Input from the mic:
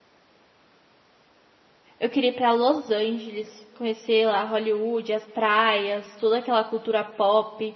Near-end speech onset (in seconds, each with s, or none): 2.0 s